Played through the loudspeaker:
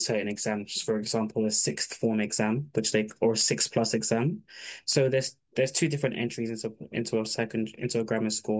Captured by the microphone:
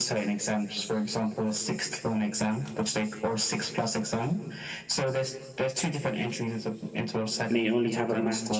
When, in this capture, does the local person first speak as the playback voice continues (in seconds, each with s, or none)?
7.5 s